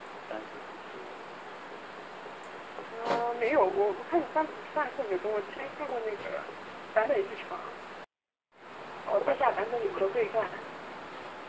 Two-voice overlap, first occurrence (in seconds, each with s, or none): 9.1 s